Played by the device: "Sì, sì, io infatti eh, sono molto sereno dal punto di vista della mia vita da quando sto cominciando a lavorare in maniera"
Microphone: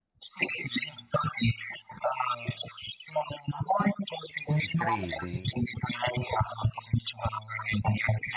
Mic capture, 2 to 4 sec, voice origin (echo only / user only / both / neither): echo only